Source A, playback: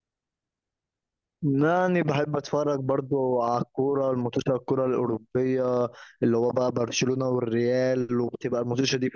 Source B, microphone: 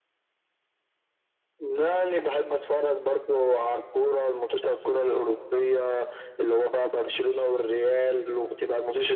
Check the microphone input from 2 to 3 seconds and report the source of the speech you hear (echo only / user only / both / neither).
echo only